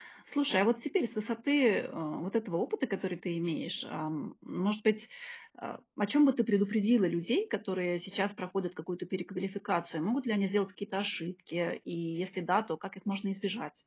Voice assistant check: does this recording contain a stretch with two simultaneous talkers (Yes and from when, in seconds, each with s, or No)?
No